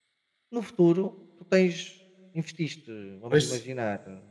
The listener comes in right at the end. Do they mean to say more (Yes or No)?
No